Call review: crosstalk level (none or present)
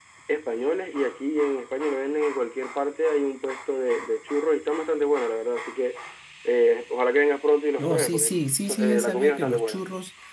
present